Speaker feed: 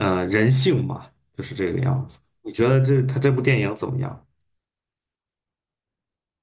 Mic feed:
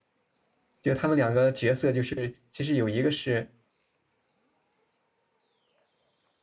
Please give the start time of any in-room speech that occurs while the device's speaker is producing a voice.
0.8 s

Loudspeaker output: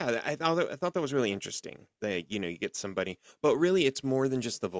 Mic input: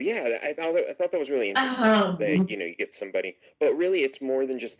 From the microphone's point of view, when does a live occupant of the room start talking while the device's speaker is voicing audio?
1.6 s

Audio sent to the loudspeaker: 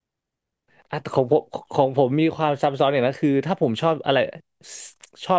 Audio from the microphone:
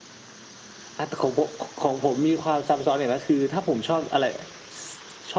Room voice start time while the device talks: none

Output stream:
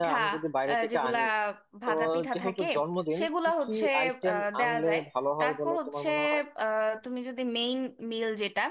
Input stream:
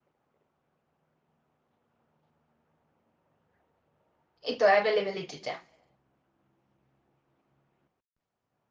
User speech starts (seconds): 4.5 s

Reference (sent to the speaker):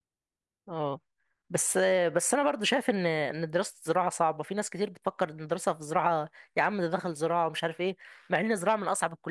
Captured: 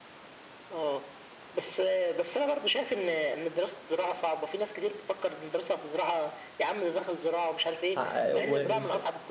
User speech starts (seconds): 8.0 s

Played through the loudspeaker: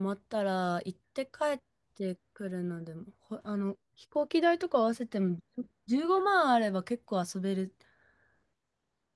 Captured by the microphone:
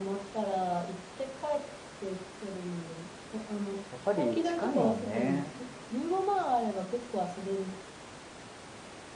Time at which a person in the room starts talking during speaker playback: 3.9 s

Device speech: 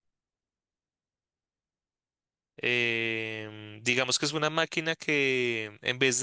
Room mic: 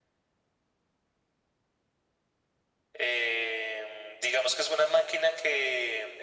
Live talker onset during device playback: none

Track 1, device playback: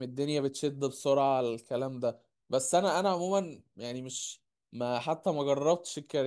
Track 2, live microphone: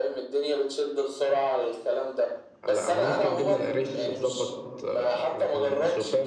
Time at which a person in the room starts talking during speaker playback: 2.6 s

